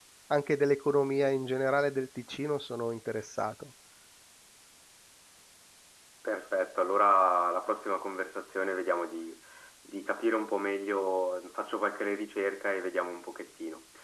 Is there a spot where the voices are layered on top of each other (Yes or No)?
No